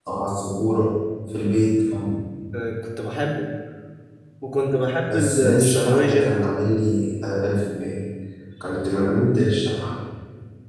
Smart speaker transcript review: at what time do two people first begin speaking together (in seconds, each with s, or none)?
5.1 s